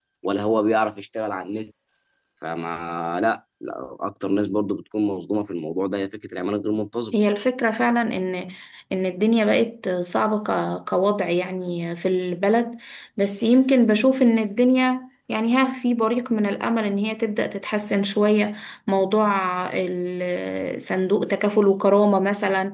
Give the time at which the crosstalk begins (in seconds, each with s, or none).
none